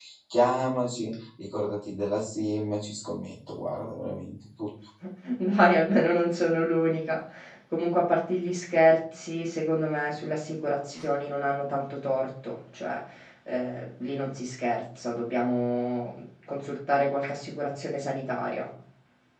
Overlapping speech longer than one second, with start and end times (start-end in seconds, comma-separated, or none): none